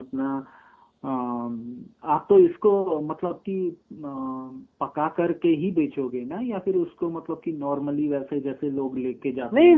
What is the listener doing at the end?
taking over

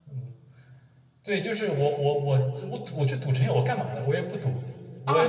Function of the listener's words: taking over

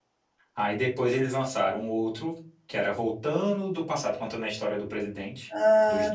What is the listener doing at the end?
taking over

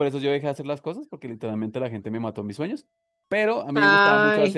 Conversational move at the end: listening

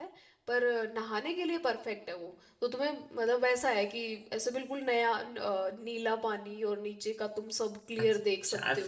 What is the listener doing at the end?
taking over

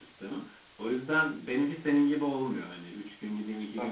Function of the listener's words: listening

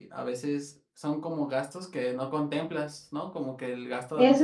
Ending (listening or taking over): taking over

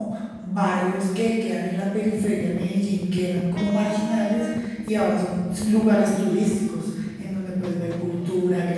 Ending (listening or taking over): listening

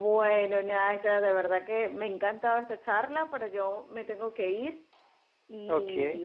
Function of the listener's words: listening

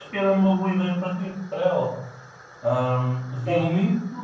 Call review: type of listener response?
listening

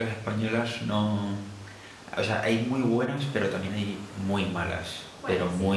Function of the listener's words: listening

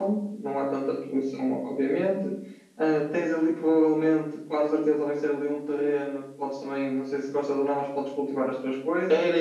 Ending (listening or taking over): taking over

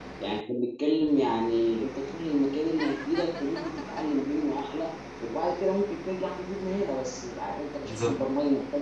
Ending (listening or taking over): listening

